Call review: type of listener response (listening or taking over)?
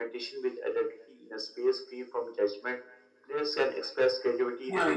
taking over